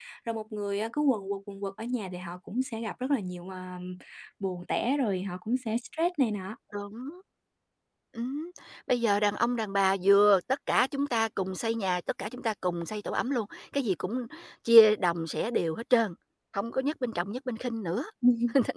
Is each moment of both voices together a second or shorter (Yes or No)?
Yes